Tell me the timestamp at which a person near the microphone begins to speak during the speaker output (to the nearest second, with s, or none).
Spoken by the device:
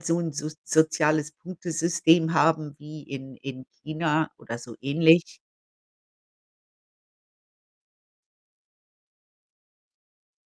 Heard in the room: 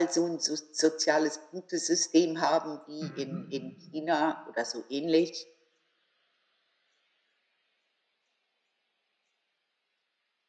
3 s